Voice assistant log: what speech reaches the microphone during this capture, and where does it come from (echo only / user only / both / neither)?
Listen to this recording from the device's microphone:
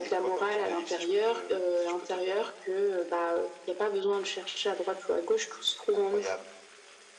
echo only